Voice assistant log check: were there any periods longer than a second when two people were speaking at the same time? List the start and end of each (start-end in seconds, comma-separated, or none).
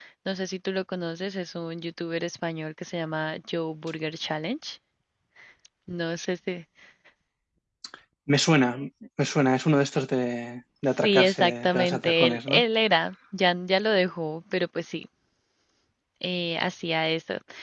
11.0-12.6